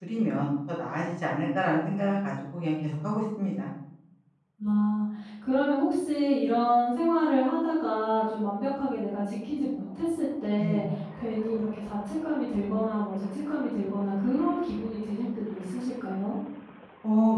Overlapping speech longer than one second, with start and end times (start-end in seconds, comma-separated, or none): none